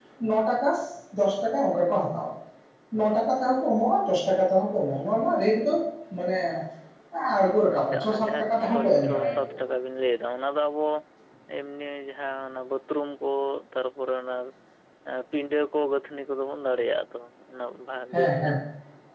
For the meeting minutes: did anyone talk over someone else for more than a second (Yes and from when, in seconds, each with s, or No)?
Yes, from 7.8 s